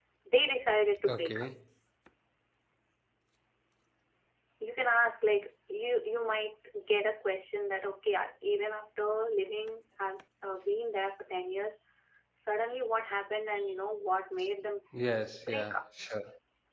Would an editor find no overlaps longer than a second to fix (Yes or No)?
Yes